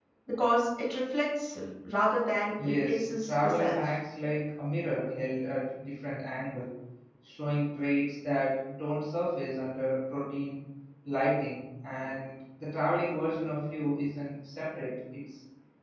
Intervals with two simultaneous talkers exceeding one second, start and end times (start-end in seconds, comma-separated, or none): 2.6-3.9